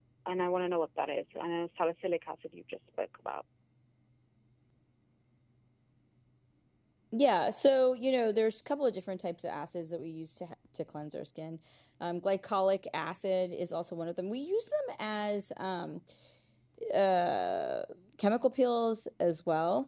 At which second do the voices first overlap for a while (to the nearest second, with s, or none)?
none